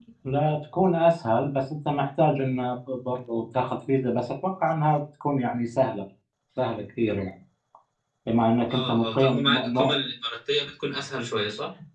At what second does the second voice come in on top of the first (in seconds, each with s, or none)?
8.7 s